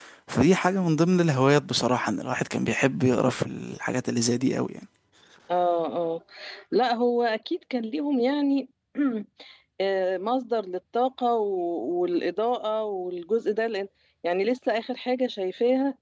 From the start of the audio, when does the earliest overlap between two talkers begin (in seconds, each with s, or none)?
none